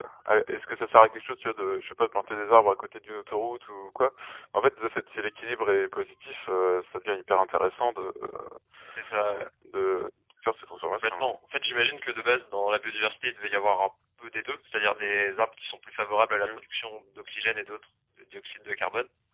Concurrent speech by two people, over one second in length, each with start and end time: none

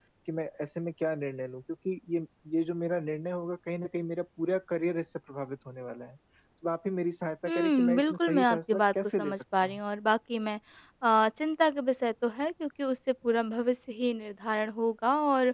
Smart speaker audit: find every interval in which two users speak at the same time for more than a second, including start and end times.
7.5-9.8

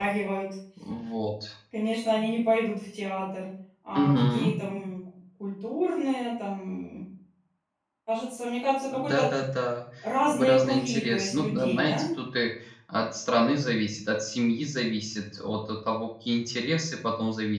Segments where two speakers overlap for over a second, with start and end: 10.3-12.1

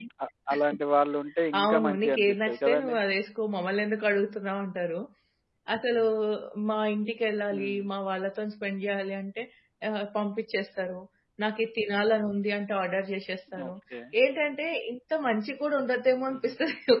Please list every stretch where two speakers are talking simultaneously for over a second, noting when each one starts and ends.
1.6-3.0

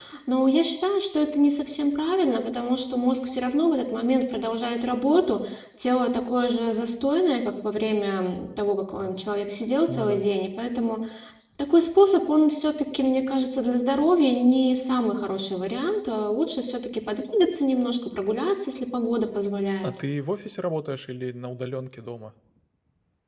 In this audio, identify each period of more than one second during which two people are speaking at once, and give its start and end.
none

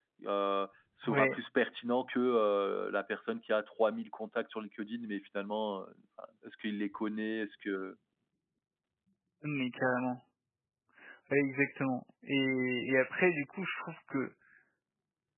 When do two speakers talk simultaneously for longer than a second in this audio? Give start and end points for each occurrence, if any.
none

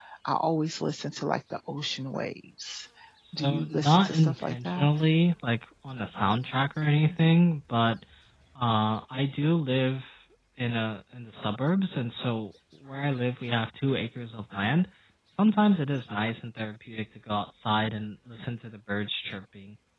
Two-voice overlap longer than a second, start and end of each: 3.4-4.9

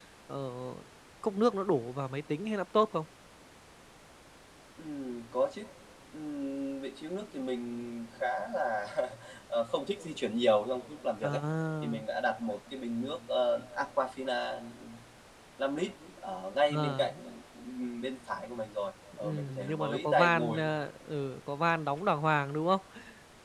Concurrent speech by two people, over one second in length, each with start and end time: 19.2-20.7

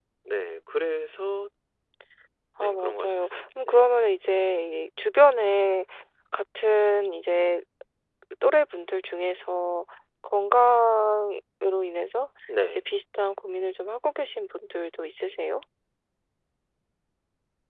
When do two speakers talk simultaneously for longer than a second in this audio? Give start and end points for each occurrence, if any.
2.6-3.9

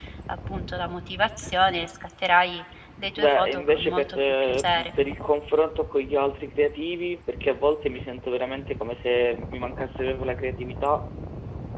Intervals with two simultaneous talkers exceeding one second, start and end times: 3.2-4.9

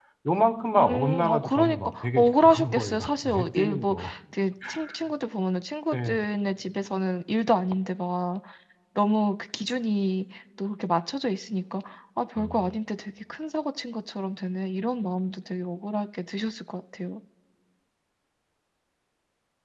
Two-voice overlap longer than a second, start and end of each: 0.8-3.9

